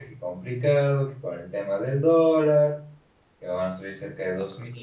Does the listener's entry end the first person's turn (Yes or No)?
No